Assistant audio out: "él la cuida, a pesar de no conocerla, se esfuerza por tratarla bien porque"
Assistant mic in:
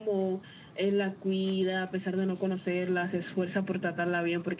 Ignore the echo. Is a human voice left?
No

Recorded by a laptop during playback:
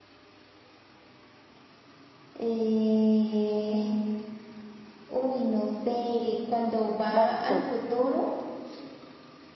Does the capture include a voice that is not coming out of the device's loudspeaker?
Yes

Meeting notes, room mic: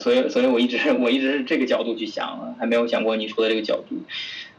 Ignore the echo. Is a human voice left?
No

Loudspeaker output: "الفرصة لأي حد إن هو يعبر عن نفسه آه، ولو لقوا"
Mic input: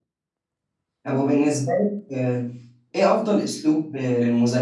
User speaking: Yes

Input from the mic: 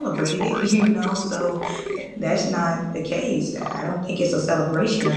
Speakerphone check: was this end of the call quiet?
No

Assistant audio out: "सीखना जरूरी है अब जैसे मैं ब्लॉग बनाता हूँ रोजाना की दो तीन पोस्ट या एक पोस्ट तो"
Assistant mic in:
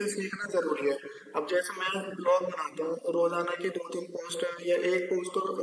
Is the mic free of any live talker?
Yes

